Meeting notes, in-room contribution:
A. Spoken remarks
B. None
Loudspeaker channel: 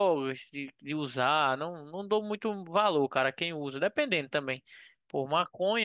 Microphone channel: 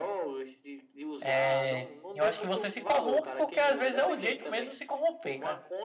A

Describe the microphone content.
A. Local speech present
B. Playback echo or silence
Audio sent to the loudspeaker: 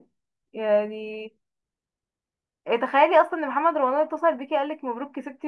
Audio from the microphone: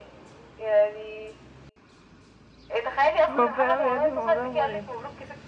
A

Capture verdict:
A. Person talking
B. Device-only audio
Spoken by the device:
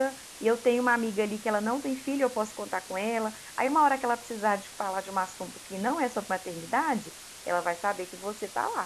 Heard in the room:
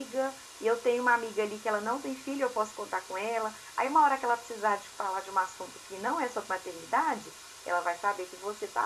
B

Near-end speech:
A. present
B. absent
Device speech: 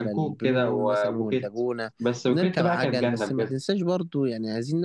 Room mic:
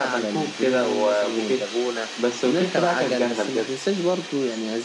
B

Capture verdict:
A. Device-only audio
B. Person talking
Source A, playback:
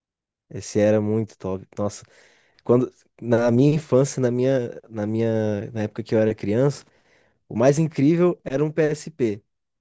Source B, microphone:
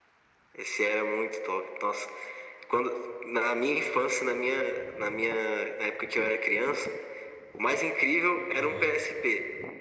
B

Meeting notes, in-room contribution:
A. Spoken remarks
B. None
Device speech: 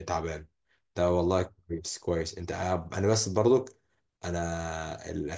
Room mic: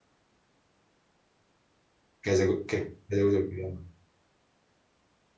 A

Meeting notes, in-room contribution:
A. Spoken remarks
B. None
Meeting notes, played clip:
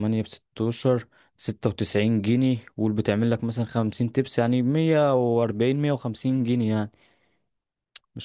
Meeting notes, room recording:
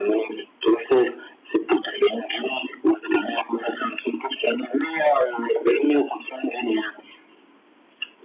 B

